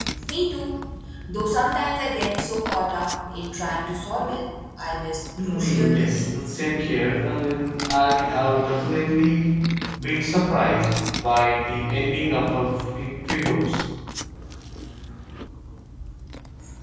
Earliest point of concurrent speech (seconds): 5 s

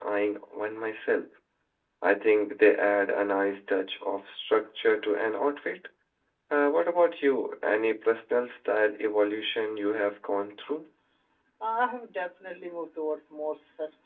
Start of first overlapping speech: none

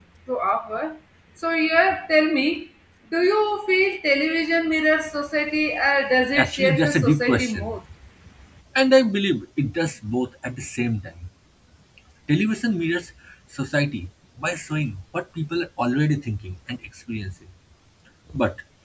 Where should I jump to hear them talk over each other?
6 s

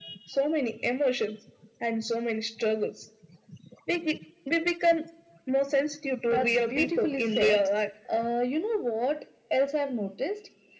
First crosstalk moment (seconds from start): 6 s

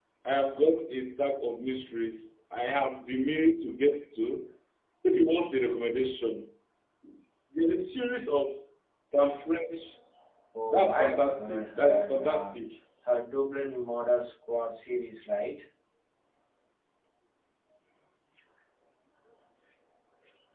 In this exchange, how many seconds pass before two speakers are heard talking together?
11 s

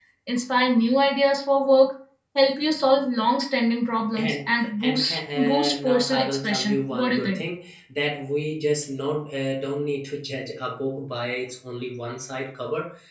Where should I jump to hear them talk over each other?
4 s

